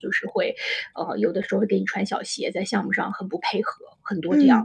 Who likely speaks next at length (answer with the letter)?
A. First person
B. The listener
B